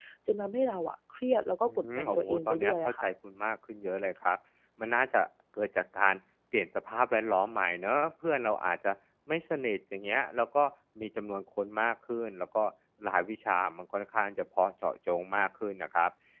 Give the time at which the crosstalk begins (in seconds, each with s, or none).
1.6 s